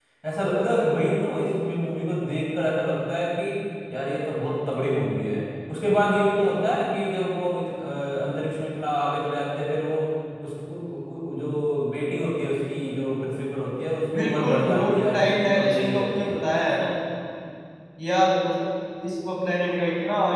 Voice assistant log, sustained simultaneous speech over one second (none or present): present